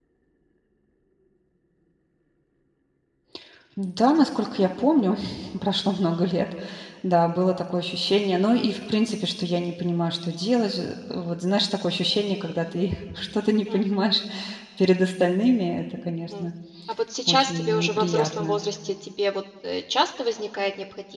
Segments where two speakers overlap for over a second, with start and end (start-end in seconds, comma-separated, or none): 17.3-18.6